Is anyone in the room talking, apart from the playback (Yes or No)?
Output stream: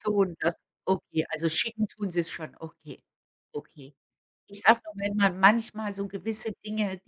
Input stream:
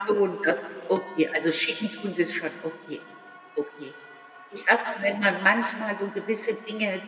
No